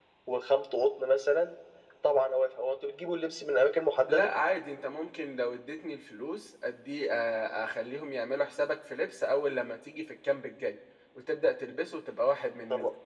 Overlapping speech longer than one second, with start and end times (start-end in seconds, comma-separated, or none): none